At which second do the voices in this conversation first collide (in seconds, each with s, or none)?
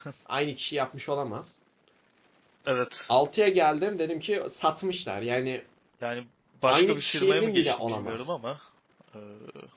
6.7 s